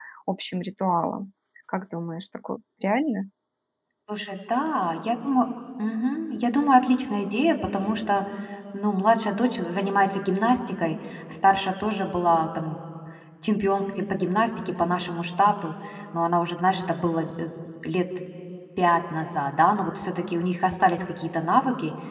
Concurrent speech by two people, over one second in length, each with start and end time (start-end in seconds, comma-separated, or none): none